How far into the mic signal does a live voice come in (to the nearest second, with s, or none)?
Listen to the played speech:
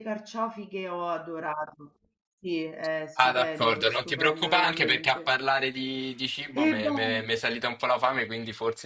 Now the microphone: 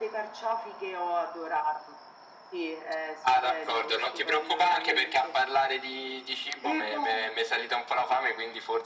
none